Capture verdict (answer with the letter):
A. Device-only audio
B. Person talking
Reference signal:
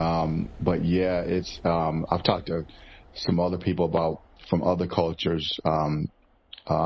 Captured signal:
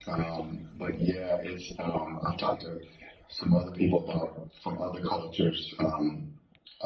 A